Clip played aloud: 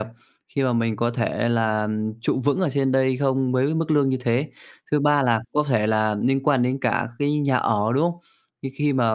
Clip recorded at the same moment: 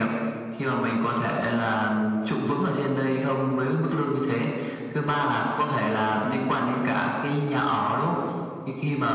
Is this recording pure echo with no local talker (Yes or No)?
Yes